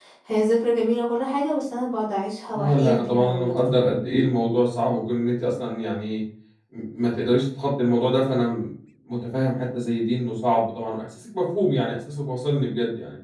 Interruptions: present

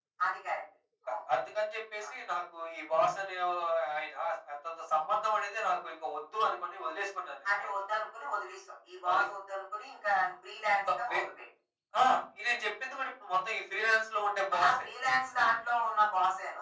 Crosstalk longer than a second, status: none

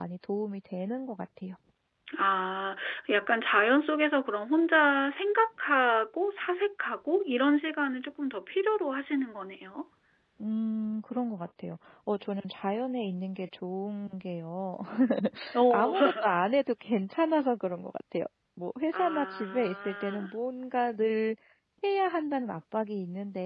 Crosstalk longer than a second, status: present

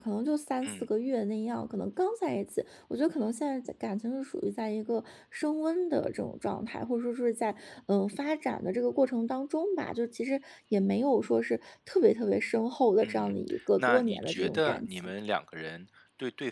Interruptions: present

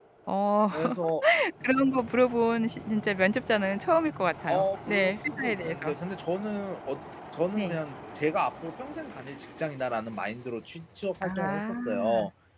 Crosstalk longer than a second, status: present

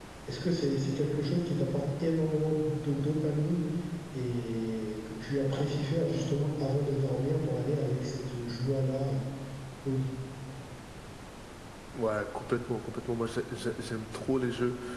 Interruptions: none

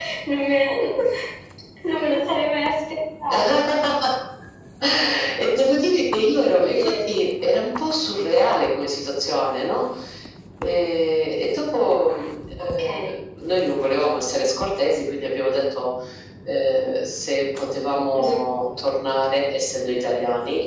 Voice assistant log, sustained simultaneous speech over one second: none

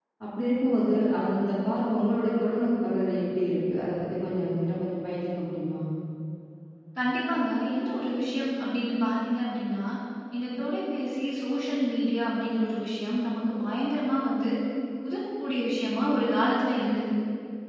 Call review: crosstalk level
none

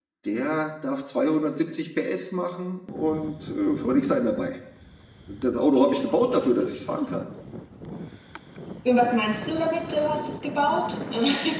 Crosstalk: none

